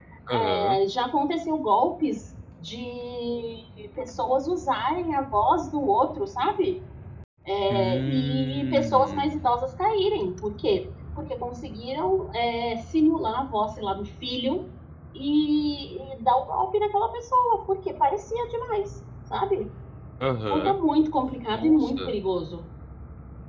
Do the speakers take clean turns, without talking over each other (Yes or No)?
No